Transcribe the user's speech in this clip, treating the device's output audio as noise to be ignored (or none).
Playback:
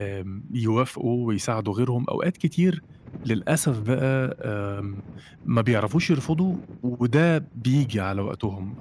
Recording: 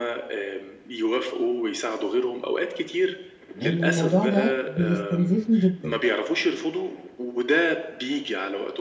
إن الموضوع ده بيستنزفني جدًا،